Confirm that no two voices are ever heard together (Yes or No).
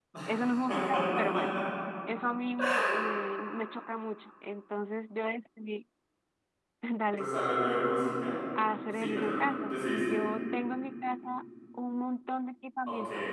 No